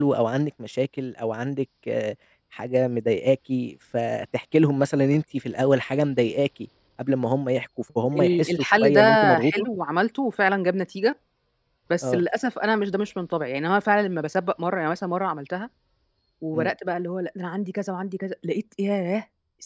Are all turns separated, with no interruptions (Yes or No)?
No